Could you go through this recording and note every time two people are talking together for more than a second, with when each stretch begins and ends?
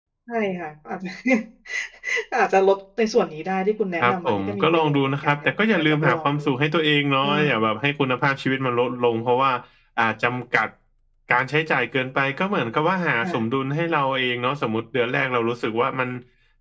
4.0-6.4

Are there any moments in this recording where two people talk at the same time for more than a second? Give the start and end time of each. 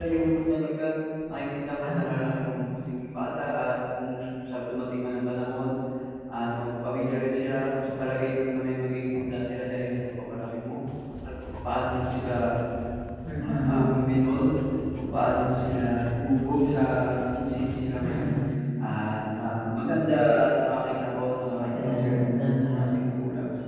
21.7-23.0

